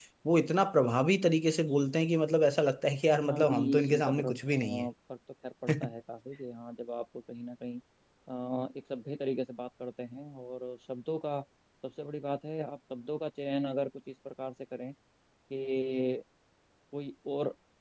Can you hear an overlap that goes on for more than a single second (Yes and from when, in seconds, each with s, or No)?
Yes, from 3.2 s